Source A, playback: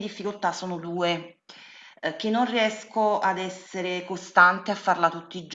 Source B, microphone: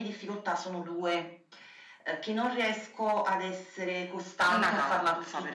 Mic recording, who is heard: both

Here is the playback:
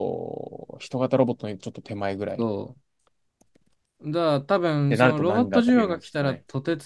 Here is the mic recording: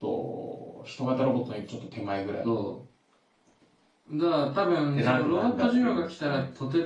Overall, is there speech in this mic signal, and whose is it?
echo only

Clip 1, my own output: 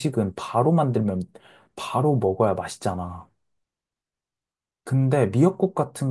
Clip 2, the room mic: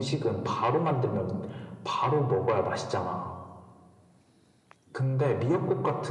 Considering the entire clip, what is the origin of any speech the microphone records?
echo only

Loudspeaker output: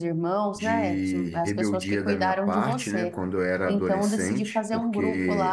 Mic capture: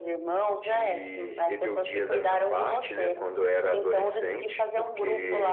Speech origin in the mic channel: echo only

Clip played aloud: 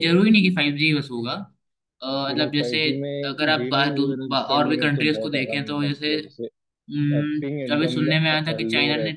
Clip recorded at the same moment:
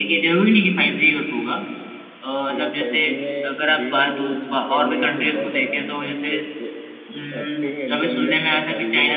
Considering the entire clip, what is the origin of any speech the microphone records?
echo only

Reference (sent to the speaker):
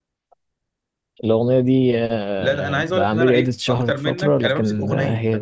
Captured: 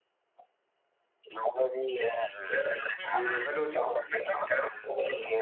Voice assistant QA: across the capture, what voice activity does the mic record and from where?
both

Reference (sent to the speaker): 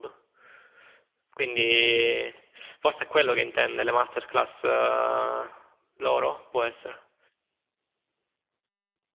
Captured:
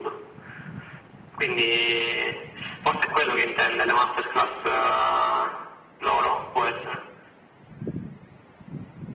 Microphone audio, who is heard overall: echo only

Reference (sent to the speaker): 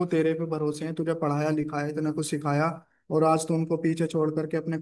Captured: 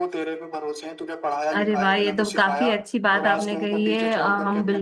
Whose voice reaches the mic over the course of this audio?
both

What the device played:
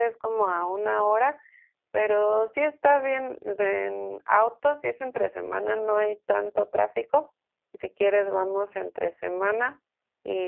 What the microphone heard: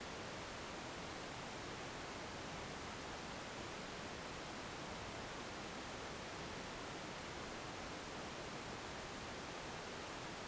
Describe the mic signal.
neither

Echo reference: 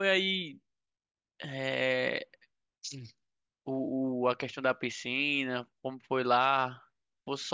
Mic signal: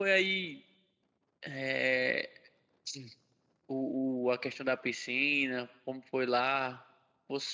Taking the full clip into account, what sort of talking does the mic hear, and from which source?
echo only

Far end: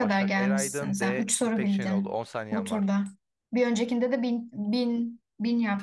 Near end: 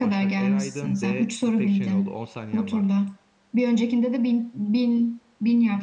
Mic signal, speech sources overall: echo only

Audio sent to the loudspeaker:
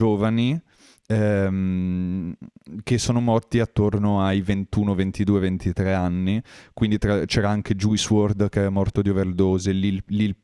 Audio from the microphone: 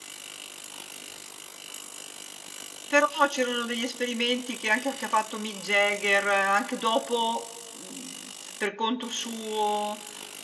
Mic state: user only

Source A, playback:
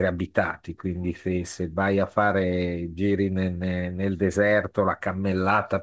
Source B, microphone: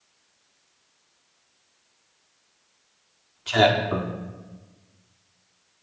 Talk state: user only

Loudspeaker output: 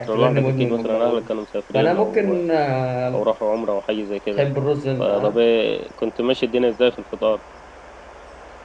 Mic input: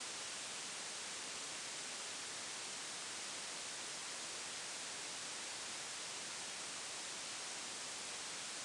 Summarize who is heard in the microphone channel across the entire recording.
neither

